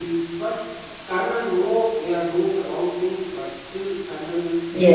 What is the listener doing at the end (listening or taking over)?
listening